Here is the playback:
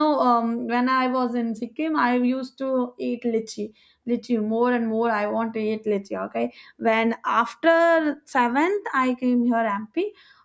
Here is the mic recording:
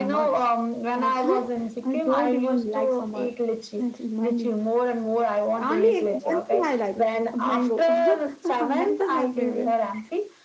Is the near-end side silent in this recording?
No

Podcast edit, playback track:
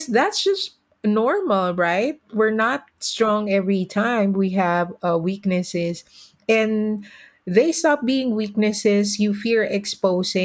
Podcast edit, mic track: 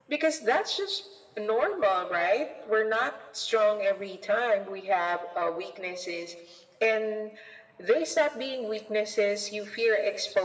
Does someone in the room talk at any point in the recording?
No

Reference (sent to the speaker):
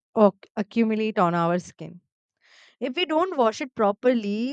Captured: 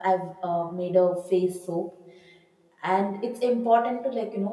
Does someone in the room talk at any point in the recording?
Yes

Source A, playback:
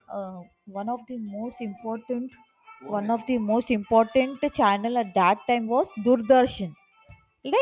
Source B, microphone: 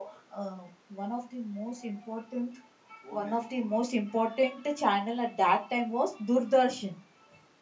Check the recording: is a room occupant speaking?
No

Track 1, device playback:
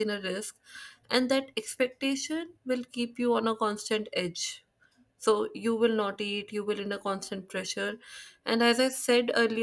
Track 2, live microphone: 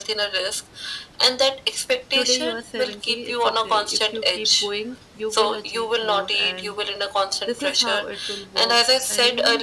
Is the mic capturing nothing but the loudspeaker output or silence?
No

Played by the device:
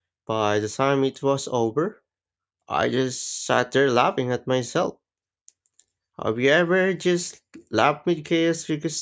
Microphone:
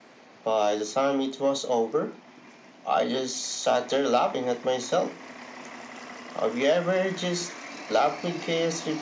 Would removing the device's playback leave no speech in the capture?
Yes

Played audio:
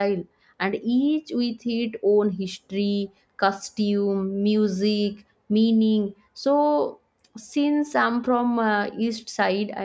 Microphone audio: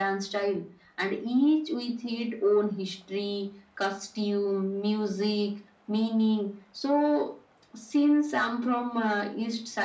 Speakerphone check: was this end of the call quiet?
Yes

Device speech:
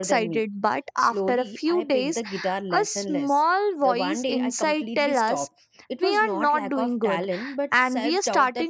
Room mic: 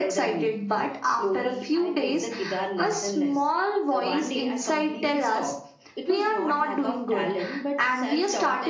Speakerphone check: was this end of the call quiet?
Yes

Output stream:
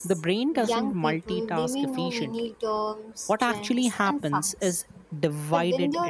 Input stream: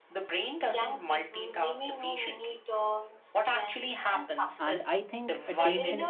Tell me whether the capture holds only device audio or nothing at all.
No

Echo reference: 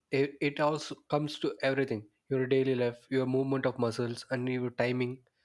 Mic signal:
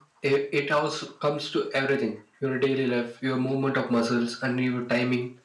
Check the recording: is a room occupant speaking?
No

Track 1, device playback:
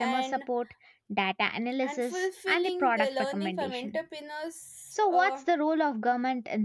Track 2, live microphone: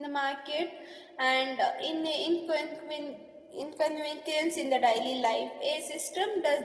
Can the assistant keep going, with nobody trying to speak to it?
No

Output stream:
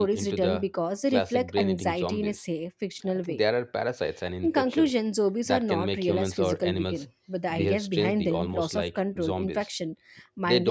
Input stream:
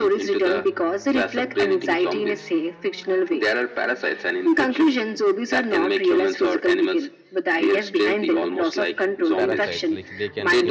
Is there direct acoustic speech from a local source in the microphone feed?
Yes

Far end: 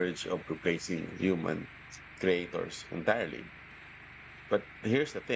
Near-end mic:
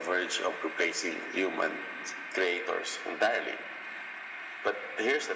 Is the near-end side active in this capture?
No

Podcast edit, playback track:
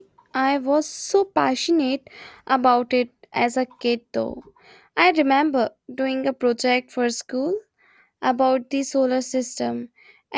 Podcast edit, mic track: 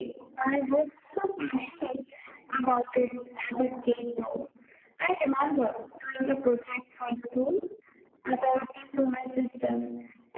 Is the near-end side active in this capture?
No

